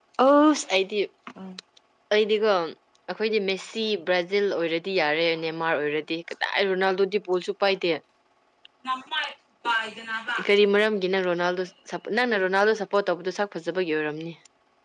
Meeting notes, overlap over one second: none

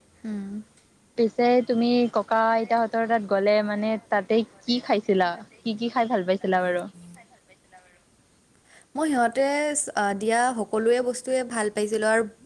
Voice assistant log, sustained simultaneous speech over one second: none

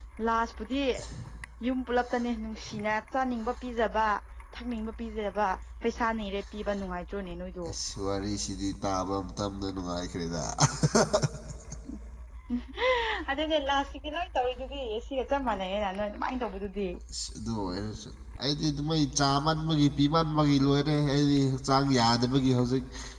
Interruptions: none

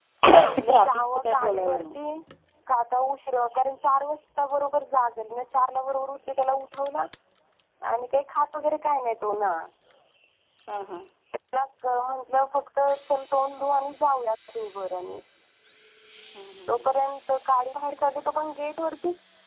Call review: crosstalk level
present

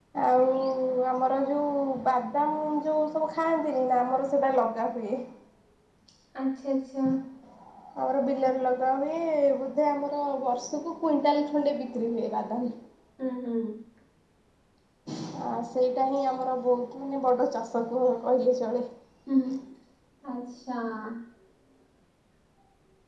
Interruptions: none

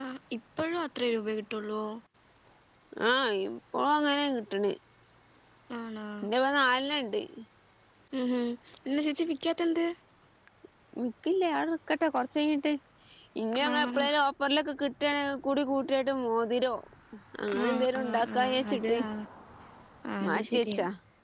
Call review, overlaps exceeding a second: present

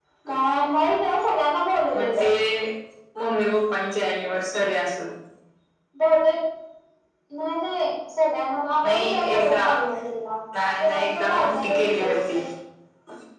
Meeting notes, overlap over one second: present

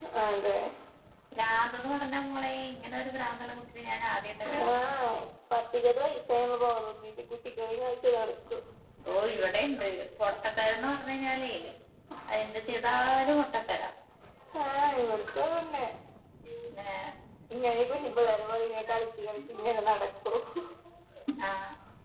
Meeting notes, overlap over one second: none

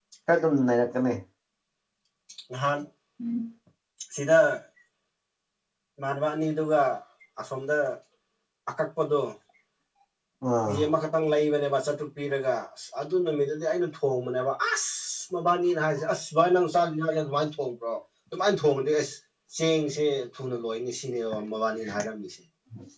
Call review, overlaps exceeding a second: none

